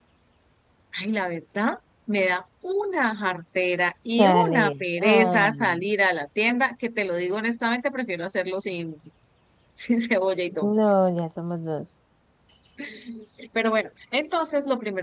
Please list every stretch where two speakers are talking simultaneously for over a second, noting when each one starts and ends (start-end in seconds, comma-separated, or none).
4.2-5.9